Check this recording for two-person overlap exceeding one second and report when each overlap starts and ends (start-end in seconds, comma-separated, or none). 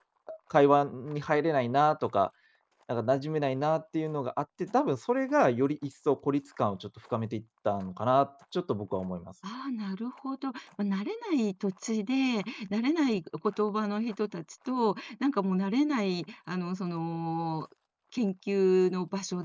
none